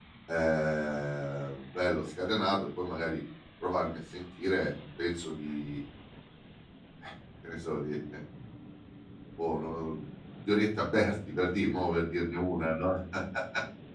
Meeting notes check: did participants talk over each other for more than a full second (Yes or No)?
No